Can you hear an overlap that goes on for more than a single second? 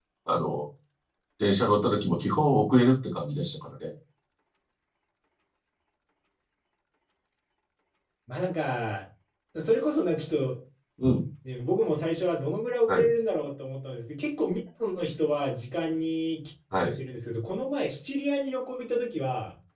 No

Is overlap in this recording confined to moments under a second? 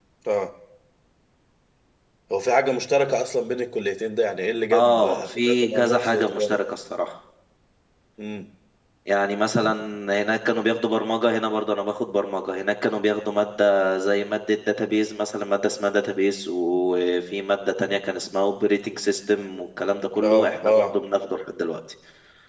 No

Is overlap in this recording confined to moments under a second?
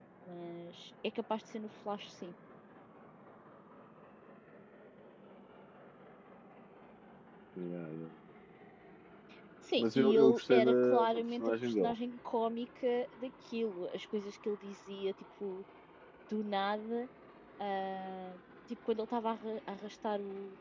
No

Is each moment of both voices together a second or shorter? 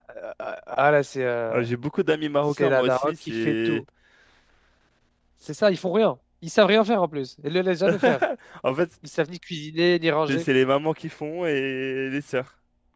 No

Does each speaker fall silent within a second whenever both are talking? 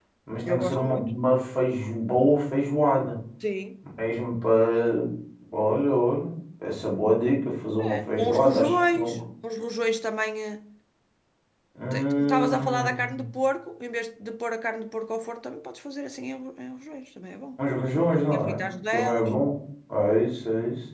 No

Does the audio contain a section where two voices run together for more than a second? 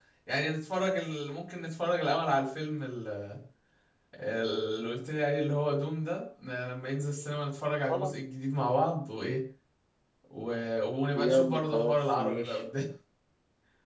Yes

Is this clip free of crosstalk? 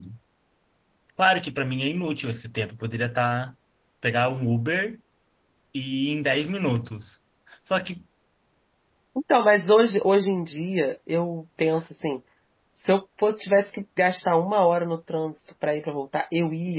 Yes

